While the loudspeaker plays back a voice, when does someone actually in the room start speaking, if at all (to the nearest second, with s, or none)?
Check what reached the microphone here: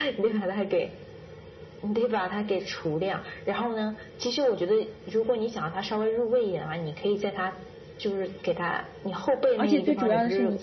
10 s